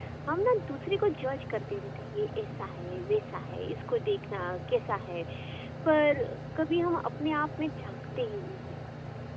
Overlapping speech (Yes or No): No